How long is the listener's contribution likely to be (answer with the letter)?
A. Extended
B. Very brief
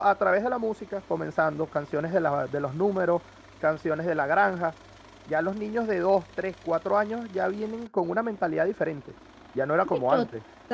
A